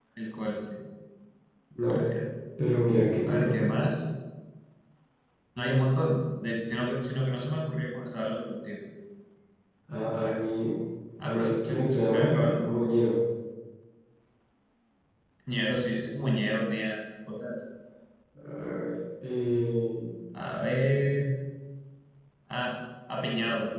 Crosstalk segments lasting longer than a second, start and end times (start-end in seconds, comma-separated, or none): 11.2-12.7